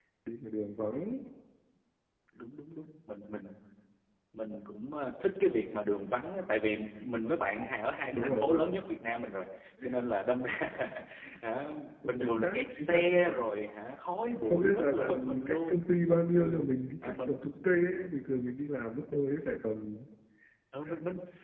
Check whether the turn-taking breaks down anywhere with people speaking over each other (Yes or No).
Yes